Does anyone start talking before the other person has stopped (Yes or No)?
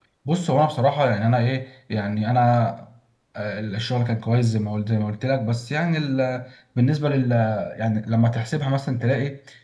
No